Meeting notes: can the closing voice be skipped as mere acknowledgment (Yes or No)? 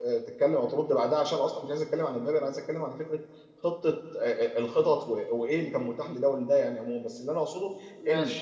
Yes